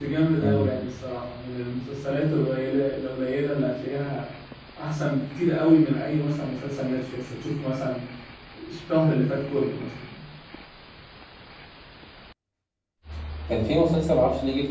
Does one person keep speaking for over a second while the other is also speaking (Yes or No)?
No